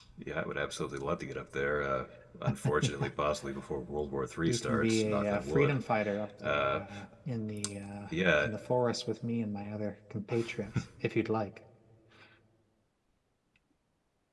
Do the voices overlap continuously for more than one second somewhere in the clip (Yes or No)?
Yes